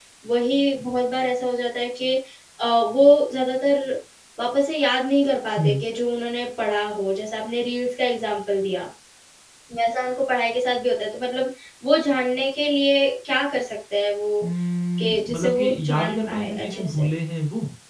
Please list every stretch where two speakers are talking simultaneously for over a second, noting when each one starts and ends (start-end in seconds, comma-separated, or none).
15.0-17.1